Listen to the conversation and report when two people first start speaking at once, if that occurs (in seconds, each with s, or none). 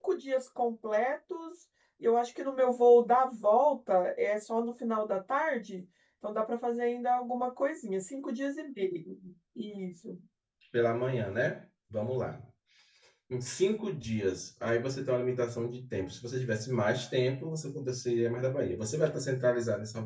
none